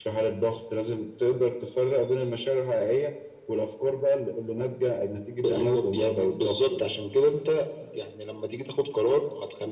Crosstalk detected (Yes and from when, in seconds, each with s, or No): Yes, from 5.4 s